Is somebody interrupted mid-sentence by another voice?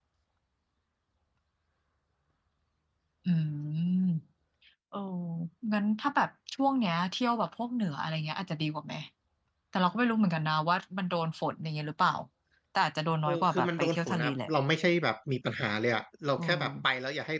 Yes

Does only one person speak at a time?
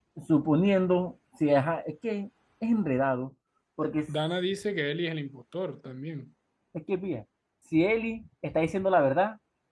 Yes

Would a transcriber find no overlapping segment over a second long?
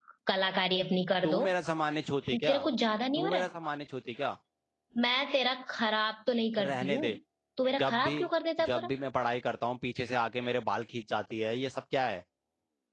Yes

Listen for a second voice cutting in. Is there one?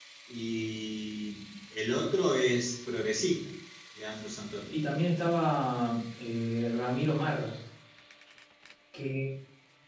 No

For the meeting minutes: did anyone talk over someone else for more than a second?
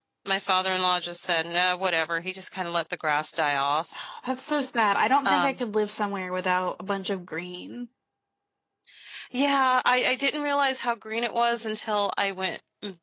No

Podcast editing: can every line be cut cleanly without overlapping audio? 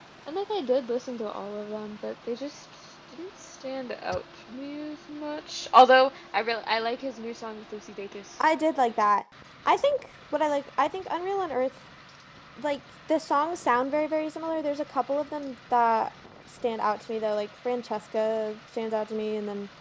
Yes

